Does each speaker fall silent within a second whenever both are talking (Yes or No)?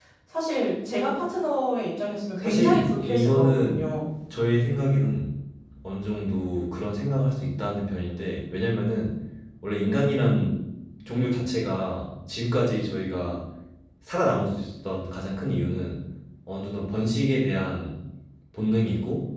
No